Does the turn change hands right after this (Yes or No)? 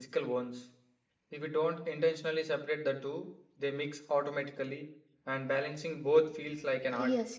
Yes